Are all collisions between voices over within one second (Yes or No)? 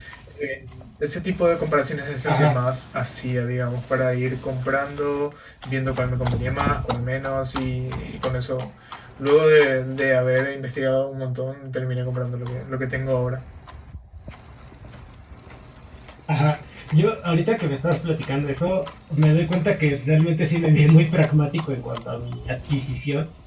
Yes